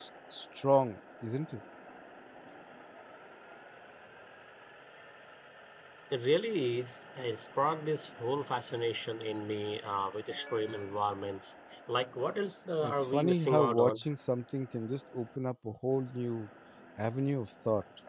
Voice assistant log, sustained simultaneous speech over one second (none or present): present